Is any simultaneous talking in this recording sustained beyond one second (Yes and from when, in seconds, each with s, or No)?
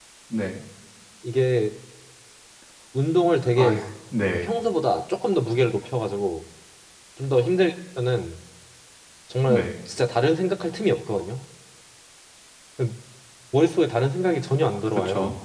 No